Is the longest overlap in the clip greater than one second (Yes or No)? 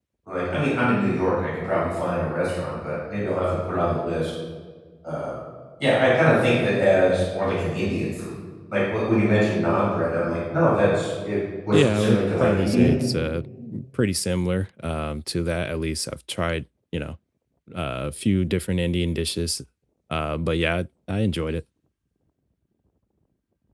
Yes